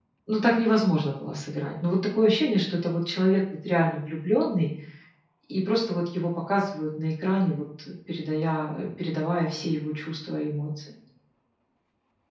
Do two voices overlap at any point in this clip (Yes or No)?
No